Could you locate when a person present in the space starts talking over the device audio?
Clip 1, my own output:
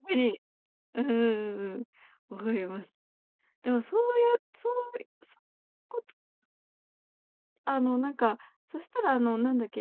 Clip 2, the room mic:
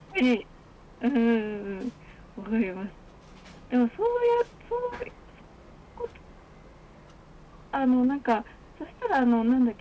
none

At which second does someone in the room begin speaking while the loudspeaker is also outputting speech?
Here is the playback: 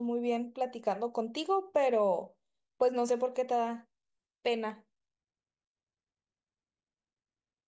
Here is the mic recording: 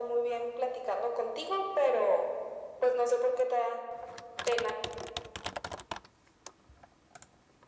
none

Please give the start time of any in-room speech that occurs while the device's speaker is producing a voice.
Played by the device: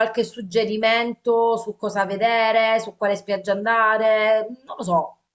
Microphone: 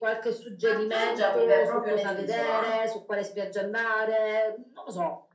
0.6 s

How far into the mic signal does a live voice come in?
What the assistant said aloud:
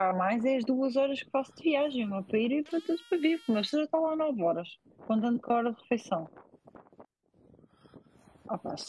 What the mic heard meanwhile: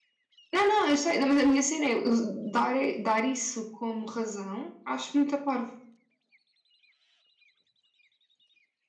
0.5 s

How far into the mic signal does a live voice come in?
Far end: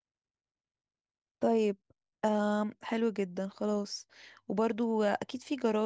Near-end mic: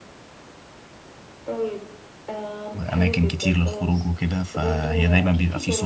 2.7 s

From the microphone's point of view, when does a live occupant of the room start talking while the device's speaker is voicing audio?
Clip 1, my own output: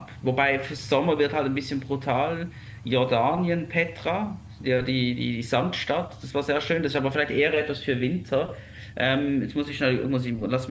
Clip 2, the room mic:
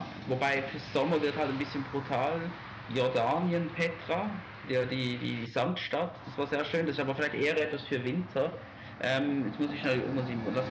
none

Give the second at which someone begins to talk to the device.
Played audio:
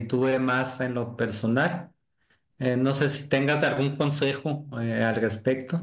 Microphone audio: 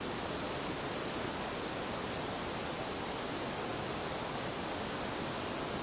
none

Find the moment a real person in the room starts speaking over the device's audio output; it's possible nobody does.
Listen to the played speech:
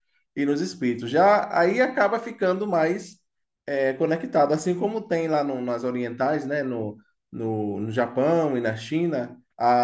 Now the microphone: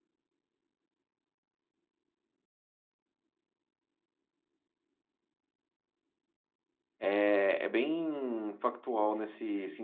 7.0 s

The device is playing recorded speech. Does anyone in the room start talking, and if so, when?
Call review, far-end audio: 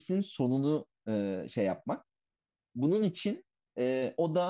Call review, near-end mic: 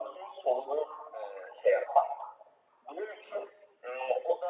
none

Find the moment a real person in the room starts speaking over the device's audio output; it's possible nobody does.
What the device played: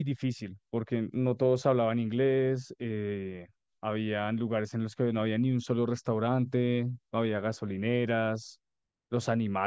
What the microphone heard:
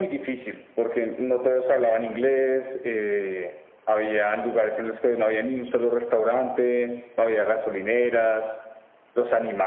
none

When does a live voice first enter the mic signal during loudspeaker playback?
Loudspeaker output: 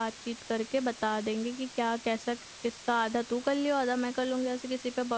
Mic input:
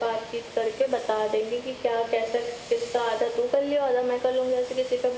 none

